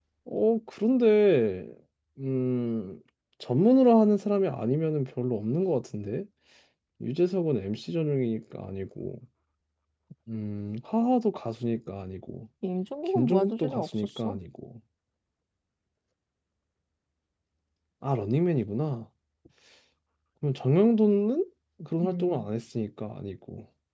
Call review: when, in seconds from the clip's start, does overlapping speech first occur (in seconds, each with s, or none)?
13.2 s